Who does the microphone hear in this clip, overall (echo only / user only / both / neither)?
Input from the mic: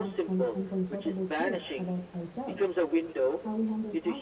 both